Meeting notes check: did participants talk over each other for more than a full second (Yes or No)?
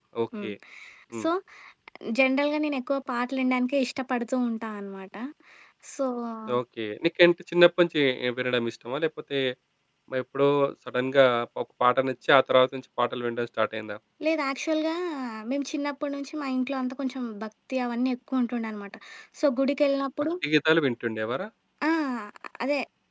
No